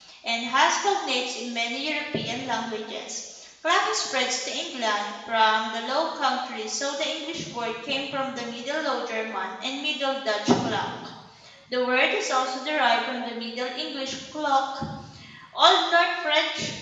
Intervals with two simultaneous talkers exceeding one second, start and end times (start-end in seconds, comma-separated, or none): none